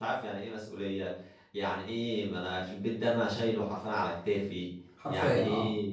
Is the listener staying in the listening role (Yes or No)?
Yes